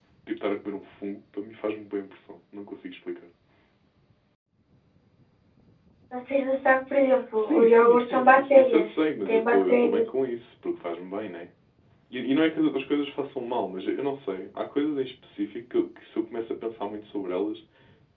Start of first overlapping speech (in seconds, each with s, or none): 7.4 s